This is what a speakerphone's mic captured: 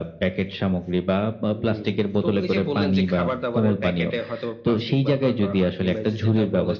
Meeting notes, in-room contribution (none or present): none